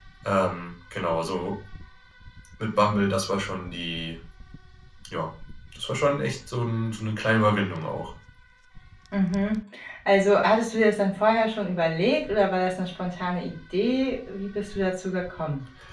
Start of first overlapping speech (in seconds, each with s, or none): none